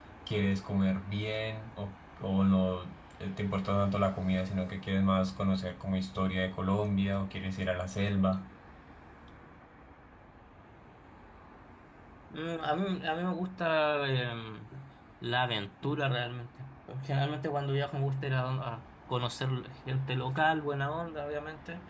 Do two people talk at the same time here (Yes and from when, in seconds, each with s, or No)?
No